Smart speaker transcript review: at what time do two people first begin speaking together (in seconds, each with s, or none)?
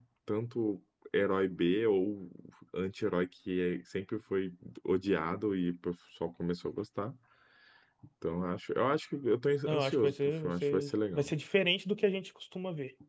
9.7 s